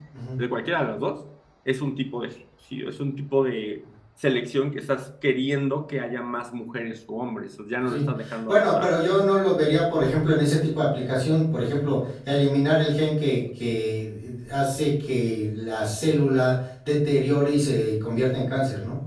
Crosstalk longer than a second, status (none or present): none